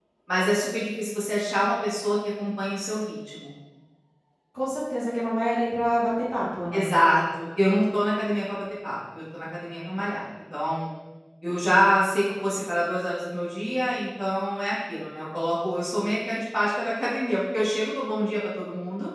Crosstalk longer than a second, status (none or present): none